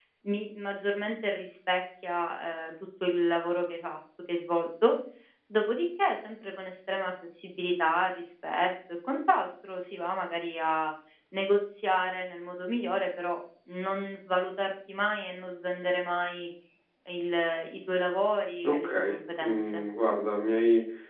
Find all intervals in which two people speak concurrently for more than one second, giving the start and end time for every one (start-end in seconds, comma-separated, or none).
18.6-19.8